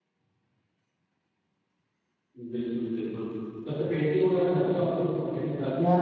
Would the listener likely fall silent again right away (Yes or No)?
No